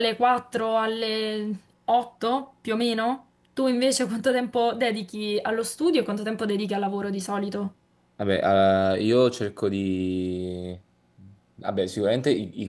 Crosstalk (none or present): none